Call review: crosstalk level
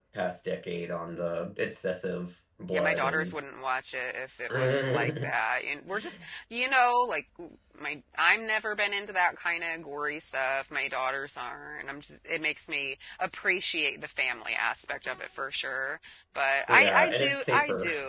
present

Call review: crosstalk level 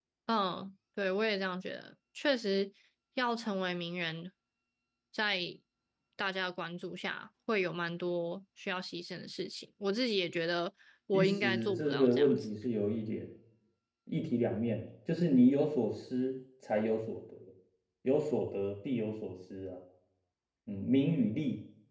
present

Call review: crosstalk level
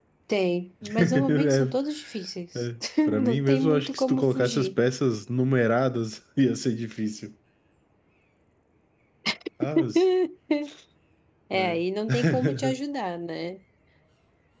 present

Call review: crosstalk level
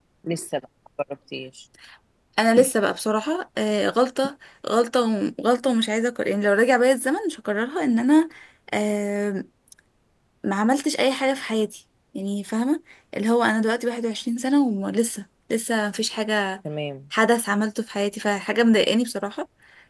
none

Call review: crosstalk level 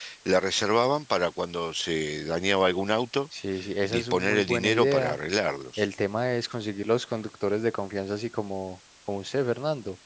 present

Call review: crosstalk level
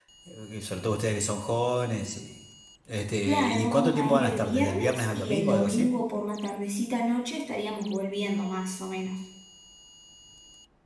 present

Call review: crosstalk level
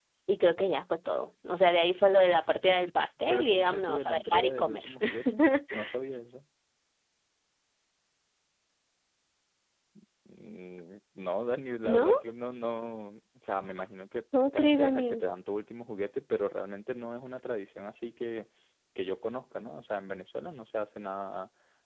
present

